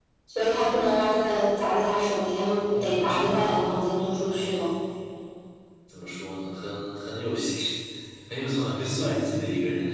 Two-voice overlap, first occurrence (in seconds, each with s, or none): 2.2 s